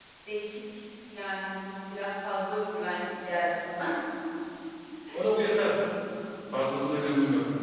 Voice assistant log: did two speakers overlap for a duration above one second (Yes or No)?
No